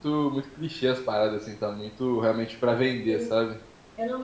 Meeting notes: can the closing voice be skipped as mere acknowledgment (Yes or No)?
No